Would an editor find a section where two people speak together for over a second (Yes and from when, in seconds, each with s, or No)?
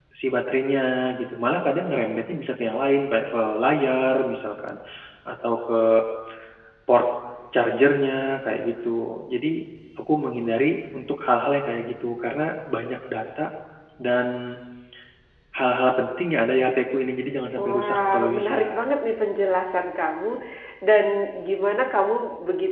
Yes, from 17.6 s